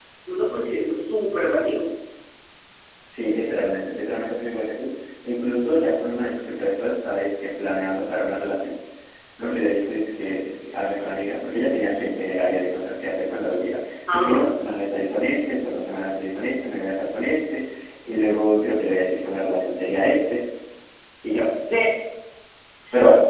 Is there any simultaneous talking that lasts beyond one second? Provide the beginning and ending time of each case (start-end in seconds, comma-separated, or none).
none